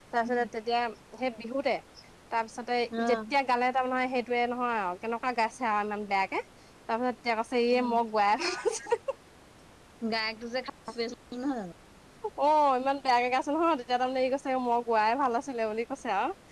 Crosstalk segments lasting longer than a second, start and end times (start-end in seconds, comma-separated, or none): none